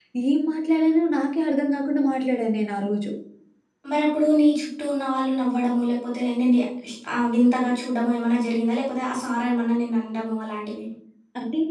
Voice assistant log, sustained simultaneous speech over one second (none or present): none